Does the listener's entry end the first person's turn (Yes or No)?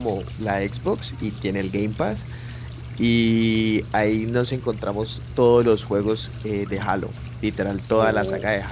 No